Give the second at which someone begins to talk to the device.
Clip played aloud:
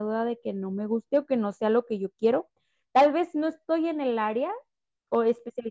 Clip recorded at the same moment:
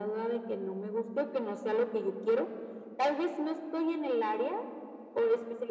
none

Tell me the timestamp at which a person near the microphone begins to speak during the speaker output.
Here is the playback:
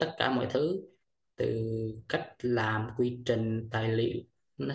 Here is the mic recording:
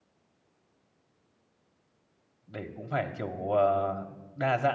2.5 s

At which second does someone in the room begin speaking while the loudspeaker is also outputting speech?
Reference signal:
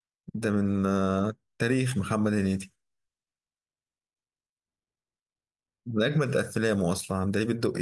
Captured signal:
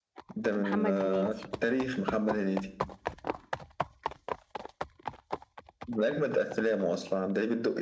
0.6 s

